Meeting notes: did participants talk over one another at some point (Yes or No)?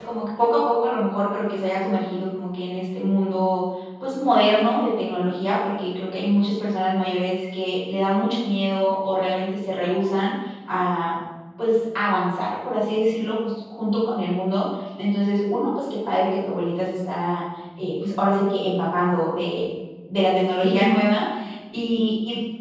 No